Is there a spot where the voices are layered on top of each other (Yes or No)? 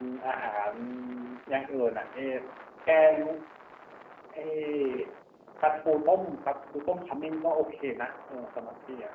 No